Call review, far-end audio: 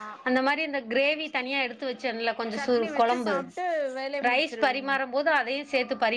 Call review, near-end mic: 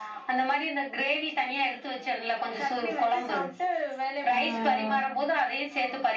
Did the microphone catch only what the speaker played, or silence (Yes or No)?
No